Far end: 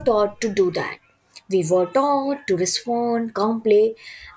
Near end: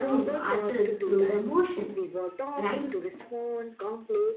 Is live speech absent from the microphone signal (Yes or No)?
No